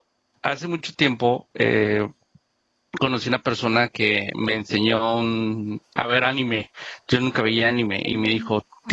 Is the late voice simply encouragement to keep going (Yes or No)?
Yes